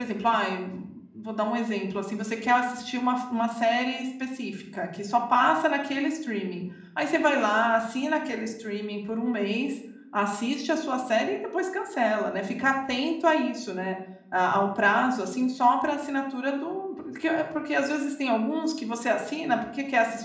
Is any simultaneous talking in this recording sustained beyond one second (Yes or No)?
No